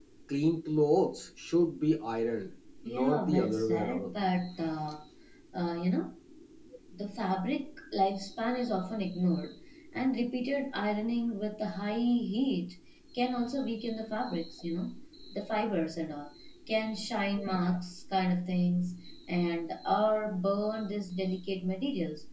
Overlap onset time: 2.8 s

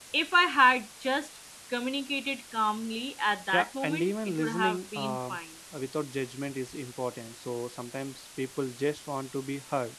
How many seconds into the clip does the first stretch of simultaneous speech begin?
3.5 s

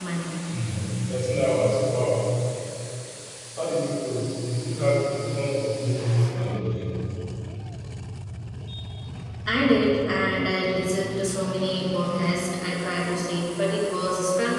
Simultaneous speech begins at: none

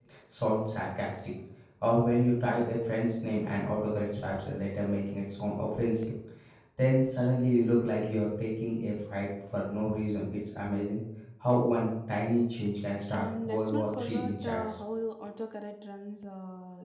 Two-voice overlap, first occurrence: 13.1 s

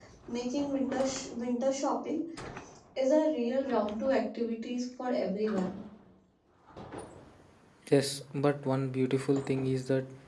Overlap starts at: none

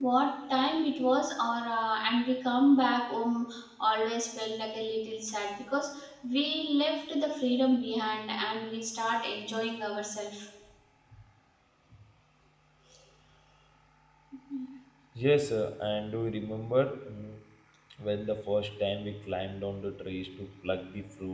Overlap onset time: none

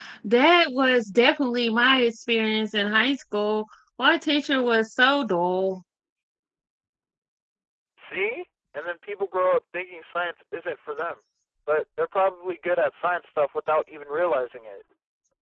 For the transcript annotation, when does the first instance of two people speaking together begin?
none

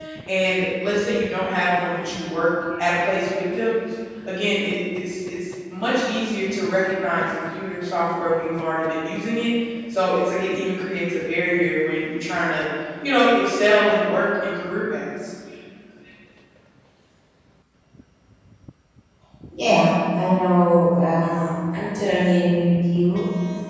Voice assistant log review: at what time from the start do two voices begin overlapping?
none

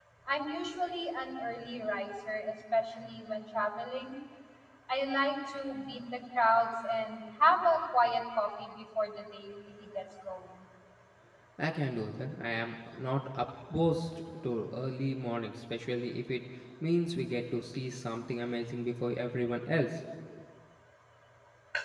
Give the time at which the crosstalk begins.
none

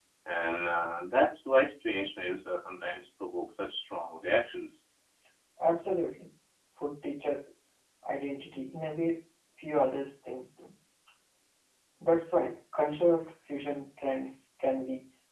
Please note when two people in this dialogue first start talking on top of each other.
none

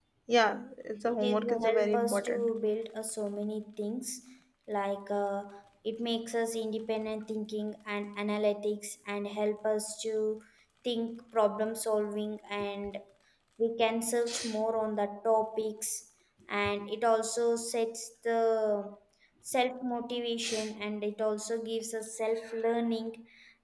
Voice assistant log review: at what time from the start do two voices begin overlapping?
1.1 s

